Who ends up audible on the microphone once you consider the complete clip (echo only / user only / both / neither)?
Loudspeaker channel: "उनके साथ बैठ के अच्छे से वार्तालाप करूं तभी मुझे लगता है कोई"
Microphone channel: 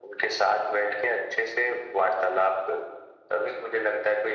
echo only